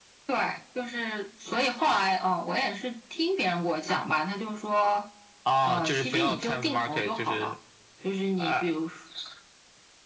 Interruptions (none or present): present